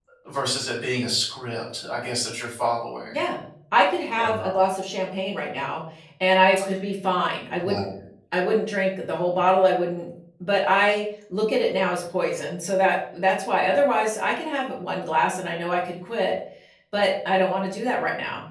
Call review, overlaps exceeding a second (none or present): none